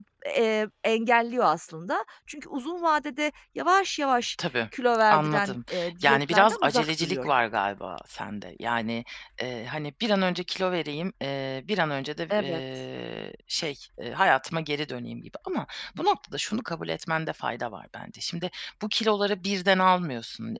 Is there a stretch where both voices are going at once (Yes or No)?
Yes